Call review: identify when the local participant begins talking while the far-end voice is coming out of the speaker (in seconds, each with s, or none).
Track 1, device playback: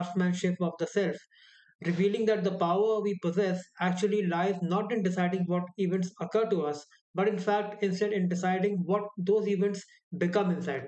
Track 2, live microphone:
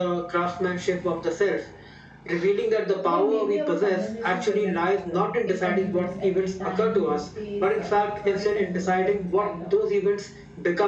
3.0 s